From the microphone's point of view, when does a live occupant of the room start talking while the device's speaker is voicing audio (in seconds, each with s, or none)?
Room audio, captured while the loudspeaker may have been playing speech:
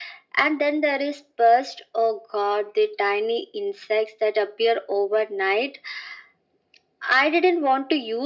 none